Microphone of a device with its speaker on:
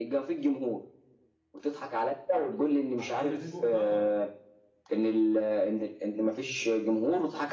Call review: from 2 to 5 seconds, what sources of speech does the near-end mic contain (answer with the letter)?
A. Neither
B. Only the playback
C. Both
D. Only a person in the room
C